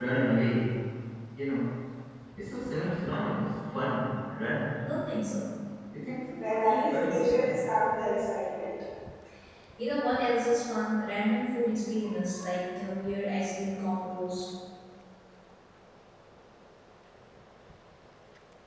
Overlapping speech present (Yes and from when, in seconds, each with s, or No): Yes, from 6.3 s